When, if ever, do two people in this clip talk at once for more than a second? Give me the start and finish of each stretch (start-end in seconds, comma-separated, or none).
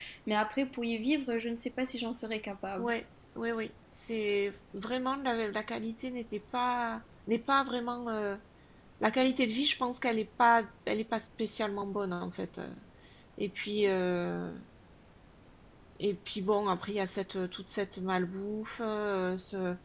none